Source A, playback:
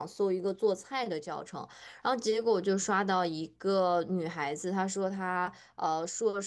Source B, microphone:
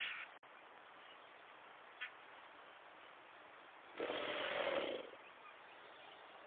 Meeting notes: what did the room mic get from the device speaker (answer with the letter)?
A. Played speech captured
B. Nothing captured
B